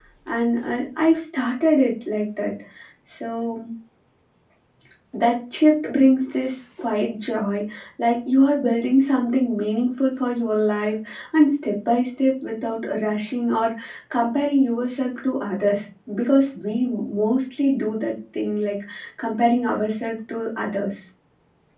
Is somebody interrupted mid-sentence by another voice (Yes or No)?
No